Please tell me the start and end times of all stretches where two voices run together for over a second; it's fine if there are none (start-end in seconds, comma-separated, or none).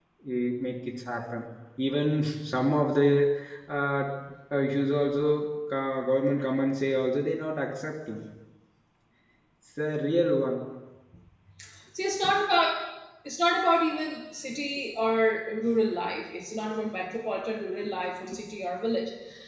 none